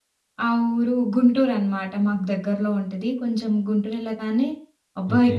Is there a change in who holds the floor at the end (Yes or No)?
No